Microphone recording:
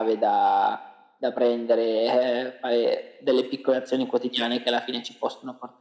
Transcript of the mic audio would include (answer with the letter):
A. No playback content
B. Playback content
B